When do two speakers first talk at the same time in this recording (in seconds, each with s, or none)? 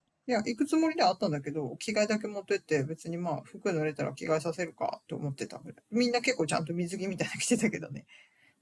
none